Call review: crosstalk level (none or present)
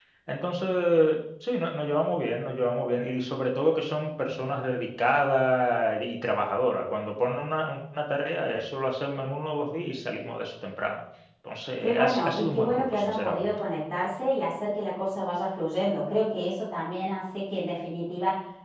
present